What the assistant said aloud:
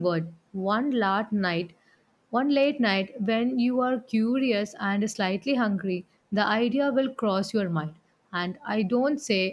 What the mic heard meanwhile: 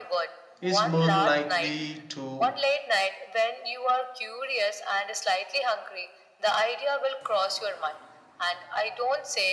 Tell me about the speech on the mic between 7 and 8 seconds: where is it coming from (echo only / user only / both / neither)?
echo only